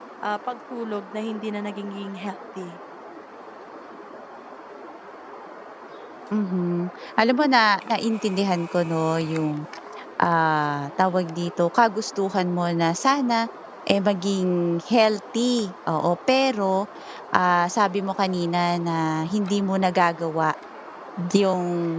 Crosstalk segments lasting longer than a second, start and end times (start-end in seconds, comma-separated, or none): none